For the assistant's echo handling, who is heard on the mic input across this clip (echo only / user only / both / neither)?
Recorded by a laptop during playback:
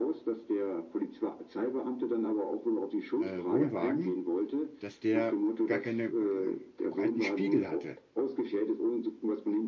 both